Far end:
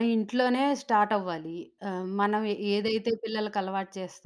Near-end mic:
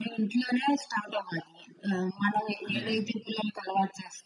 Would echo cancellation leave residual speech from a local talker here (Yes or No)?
Yes